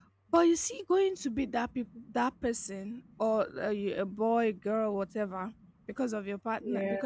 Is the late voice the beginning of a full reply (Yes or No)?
No